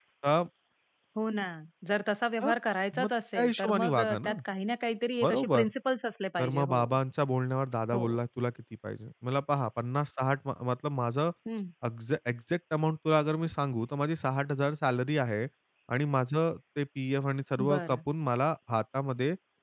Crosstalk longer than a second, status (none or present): present